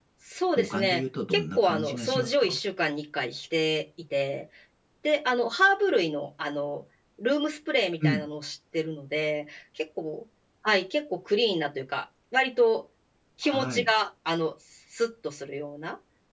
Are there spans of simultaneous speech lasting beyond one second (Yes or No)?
Yes